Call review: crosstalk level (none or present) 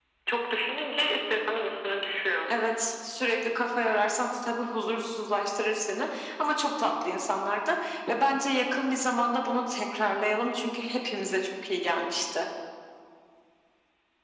none